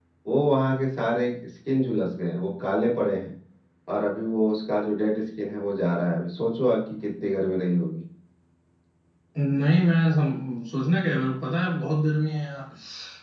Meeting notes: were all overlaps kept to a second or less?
Yes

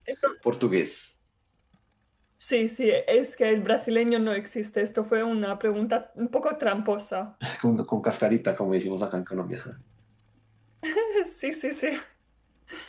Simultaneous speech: No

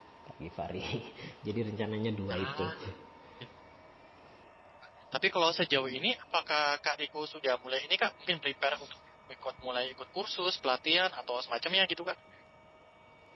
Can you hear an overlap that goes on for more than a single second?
No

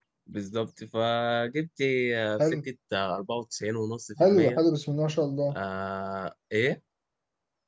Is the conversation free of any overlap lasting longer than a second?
Yes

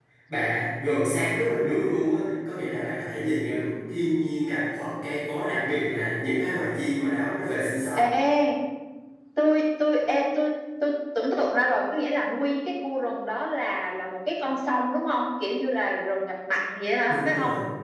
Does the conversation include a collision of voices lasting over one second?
No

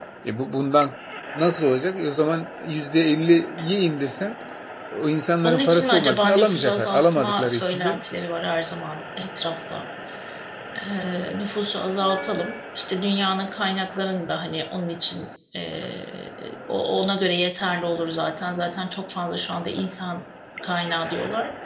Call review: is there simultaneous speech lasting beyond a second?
Yes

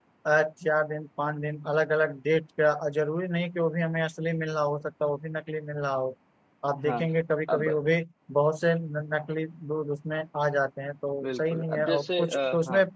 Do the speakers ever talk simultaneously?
Yes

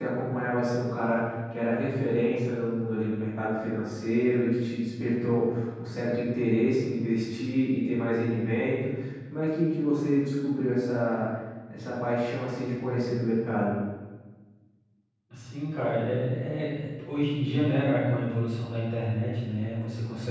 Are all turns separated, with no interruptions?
Yes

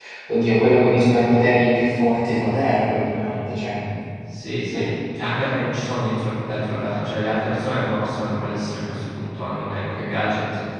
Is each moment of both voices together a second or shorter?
Yes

